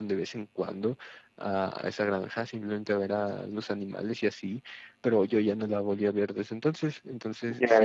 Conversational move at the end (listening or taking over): listening